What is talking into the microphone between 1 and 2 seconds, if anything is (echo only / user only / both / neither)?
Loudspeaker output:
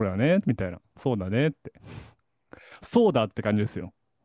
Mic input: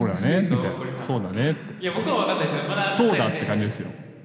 both